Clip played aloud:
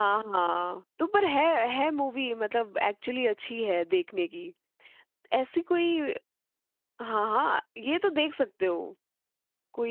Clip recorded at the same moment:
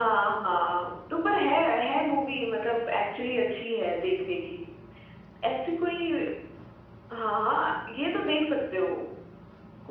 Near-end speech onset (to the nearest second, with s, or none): none